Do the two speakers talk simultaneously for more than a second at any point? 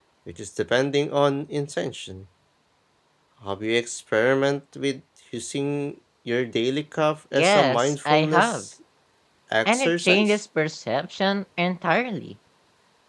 Yes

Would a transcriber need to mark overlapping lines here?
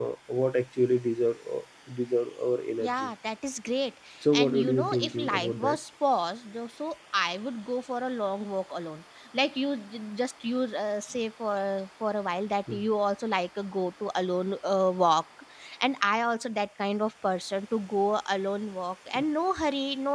Yes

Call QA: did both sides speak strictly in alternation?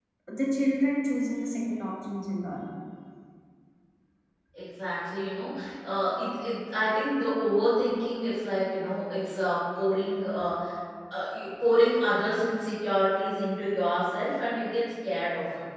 Yes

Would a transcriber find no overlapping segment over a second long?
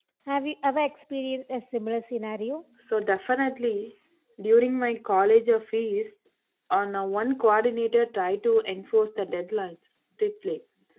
Yes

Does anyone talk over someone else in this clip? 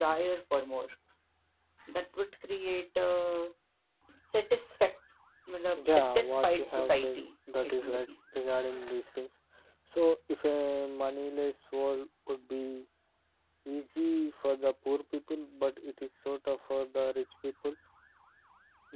Yes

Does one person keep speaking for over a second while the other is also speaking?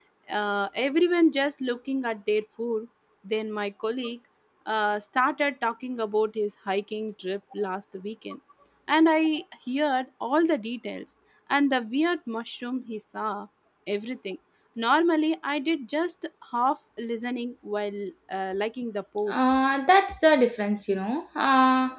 No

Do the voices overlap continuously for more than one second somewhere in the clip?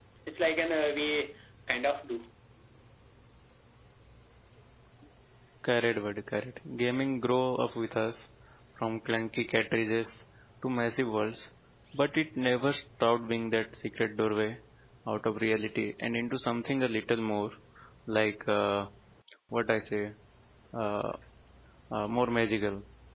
No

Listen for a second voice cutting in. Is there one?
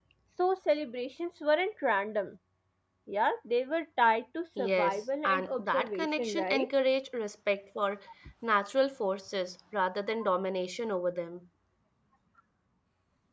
Yes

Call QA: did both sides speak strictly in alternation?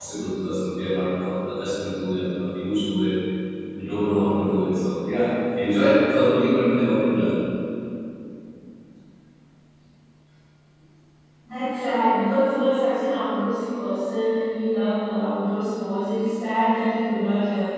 Yes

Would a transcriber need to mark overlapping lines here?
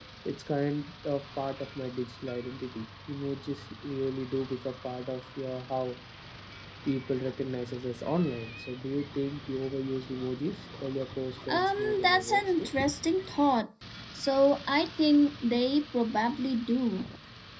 Yes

